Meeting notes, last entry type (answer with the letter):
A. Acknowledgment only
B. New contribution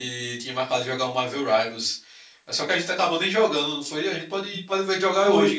B